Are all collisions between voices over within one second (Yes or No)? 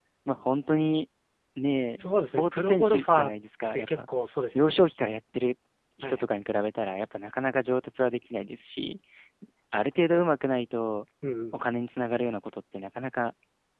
No